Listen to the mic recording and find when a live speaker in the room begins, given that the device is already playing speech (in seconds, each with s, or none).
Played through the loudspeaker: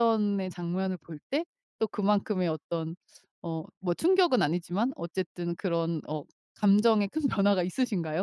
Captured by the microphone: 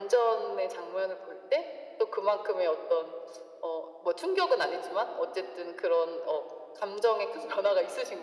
none